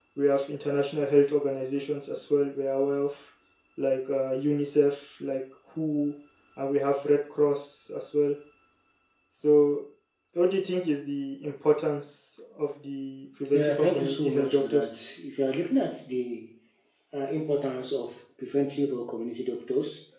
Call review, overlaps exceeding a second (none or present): present